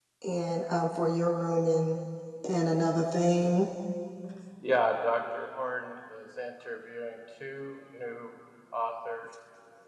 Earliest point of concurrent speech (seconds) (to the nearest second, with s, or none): none